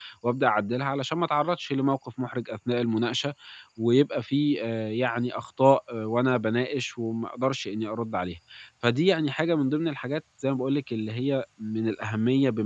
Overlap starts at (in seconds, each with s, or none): none